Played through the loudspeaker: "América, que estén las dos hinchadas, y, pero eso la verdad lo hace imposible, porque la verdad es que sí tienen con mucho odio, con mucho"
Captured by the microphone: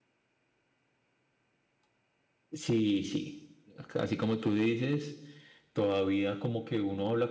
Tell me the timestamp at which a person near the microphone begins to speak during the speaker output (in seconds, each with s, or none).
2.5 s